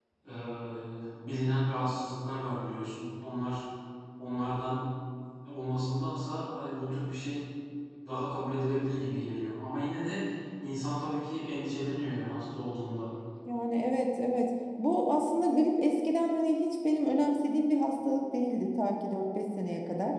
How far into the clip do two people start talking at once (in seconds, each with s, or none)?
none